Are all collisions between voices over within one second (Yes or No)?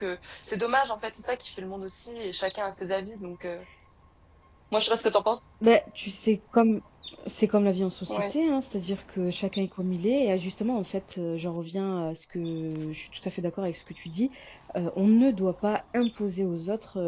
Yes